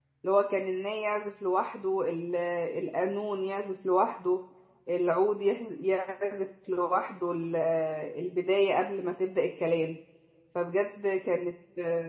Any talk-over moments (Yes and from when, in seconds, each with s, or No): No